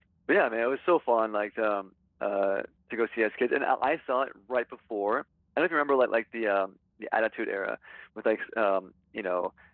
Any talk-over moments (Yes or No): No